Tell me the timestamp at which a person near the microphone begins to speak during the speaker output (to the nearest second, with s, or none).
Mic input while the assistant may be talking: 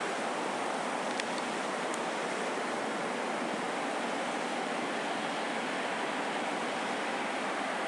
none